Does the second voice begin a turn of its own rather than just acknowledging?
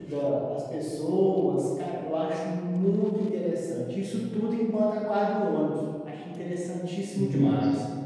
Yes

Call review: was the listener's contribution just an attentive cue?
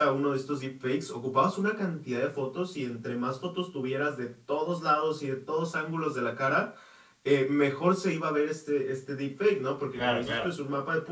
Yes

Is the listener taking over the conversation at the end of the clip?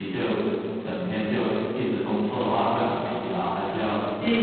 Yes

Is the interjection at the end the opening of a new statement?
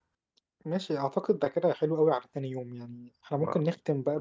No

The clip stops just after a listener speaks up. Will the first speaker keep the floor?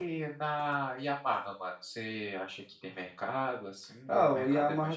No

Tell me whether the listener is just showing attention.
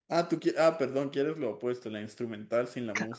No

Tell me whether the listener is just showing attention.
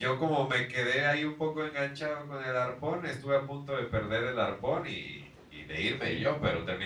Yes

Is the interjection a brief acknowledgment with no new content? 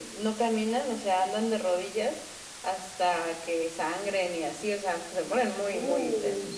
Yes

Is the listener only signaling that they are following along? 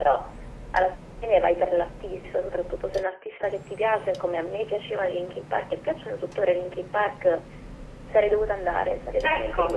No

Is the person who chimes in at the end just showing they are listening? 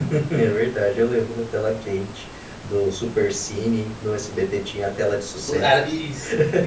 No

